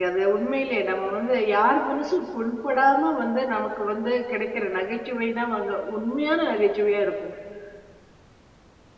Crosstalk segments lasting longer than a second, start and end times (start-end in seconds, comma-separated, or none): none